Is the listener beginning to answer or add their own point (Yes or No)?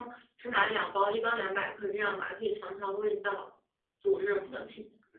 Yes